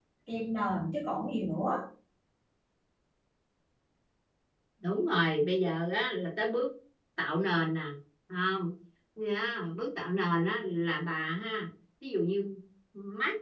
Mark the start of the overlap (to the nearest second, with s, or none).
none